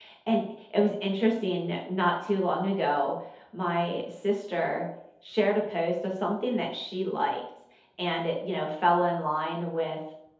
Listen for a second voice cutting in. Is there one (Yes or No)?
No